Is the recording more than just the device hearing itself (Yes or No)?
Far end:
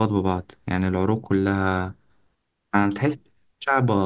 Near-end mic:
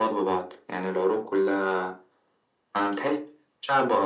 No